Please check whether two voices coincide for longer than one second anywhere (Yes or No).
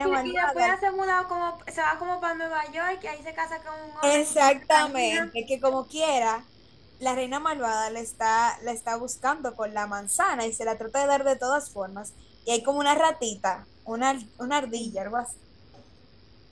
Yes